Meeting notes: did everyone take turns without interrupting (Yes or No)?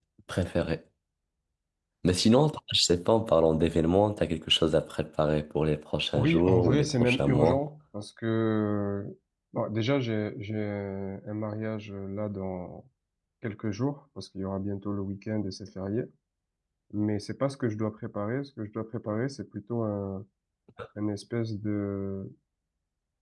No